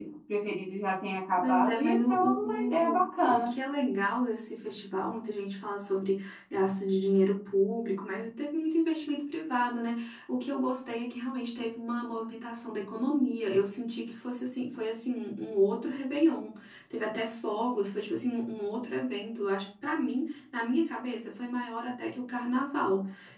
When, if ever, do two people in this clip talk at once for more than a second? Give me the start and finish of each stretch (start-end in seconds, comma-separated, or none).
1.4-3.5